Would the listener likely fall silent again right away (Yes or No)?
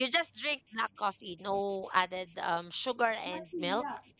No